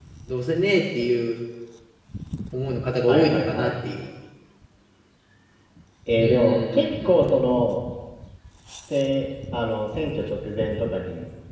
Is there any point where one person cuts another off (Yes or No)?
Yes